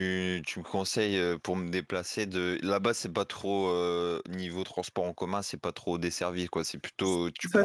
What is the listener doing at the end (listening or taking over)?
taking over